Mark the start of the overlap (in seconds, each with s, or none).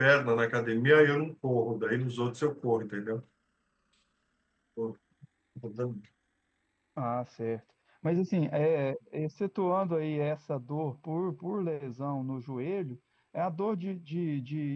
none